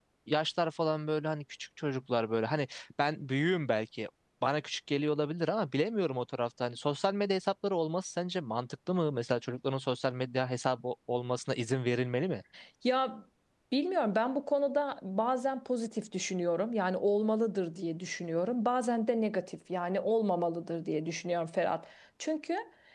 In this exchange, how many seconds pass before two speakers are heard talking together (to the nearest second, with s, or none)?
none